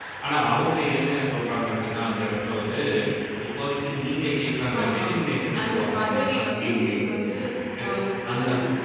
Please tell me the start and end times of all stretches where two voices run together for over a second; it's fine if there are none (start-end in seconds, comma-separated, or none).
5.6-7.3